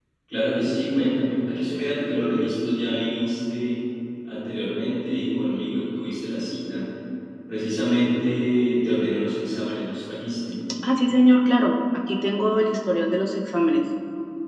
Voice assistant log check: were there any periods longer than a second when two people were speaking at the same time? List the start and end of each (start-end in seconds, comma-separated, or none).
none